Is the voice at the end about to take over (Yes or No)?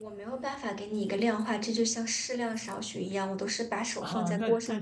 Yes